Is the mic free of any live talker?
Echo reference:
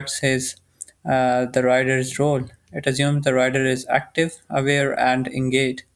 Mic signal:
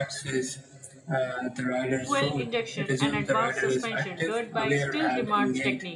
No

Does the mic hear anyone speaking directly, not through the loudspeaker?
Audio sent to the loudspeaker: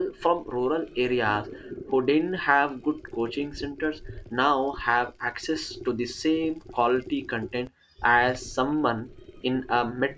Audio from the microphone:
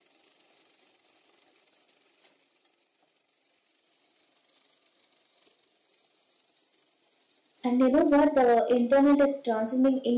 Yes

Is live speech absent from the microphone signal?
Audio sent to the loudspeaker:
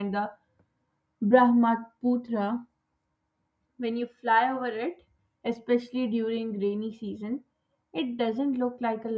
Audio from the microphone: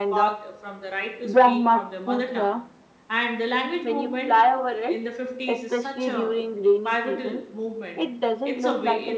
No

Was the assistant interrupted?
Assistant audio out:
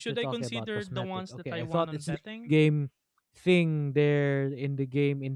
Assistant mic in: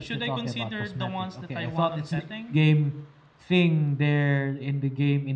No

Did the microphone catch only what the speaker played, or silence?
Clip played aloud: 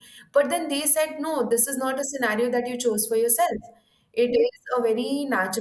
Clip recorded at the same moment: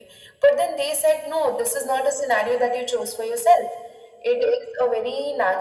Yes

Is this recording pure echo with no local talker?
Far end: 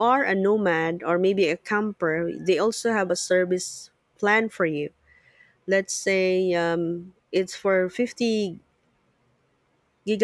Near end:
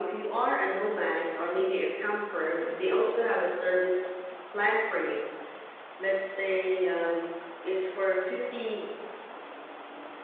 Yes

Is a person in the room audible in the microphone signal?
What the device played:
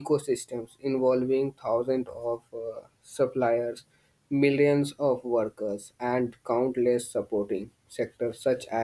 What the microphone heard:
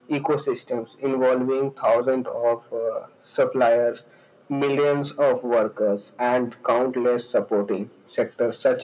No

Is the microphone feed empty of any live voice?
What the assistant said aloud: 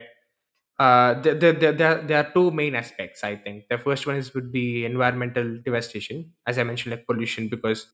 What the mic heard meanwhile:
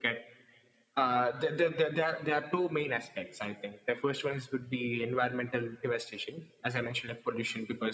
Yes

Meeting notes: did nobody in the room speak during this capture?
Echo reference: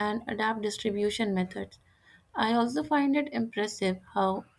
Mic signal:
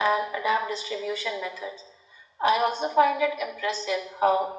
Yes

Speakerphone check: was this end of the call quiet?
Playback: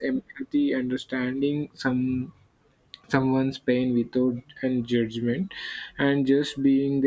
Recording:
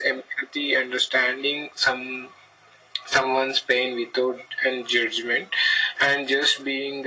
Yes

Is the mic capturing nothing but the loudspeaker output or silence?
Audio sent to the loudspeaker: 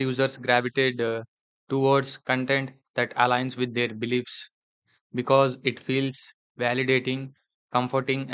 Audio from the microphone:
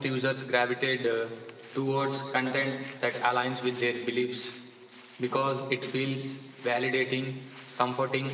Yes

